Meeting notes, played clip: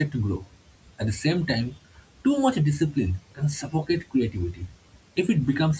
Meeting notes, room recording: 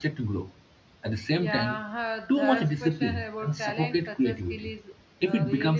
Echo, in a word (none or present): present